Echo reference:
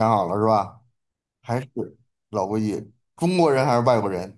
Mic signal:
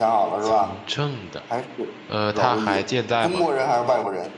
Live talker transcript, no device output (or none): 从政的，呃，他还健在吗？